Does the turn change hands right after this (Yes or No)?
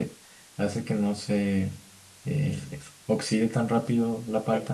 Yes